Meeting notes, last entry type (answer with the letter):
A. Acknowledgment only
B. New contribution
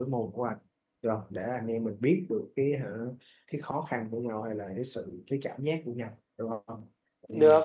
B